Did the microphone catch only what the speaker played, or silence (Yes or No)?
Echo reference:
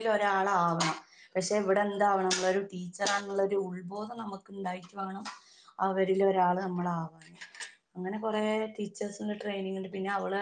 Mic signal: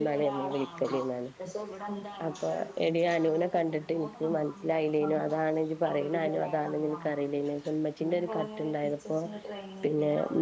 No